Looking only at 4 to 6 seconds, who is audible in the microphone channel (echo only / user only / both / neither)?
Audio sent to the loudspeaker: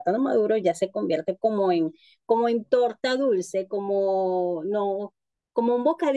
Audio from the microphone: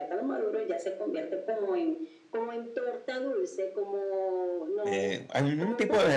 both